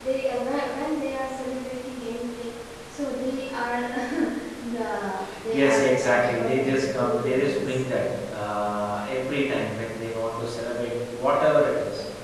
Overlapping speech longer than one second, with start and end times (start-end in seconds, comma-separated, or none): 5.5-7.7